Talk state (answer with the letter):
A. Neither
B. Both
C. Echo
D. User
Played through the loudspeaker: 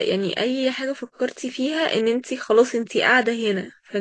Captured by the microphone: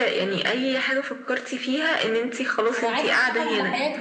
B